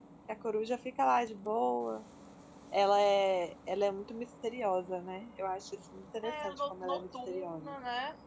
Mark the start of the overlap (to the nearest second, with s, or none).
6 s